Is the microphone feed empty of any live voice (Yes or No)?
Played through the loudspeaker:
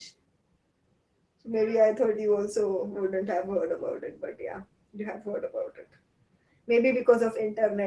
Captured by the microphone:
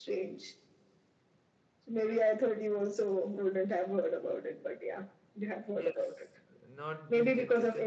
No